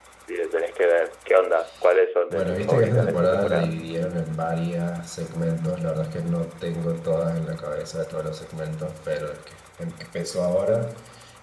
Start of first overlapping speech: 2 s

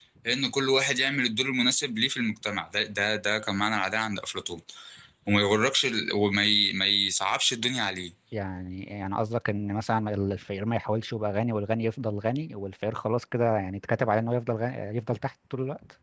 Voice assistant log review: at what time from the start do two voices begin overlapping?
none

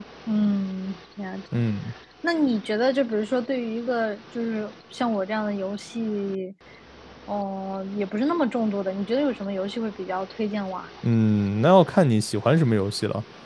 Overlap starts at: none

